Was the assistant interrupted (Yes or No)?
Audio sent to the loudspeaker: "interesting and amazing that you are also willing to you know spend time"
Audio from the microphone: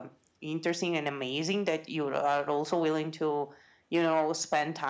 No